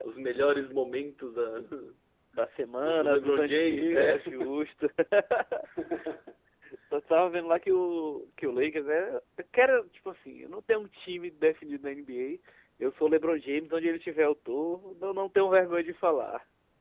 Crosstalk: present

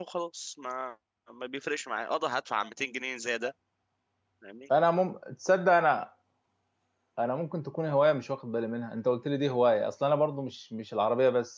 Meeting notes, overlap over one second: none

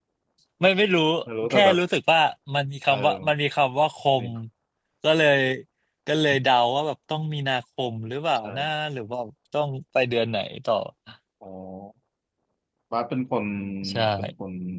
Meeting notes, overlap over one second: none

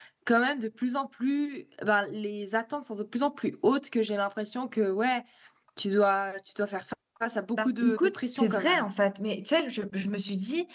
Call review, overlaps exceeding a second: present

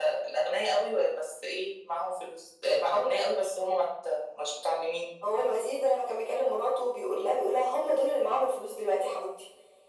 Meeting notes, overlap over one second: none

